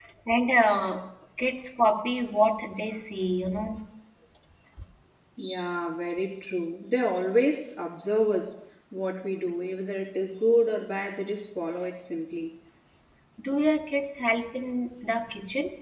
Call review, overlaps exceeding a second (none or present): none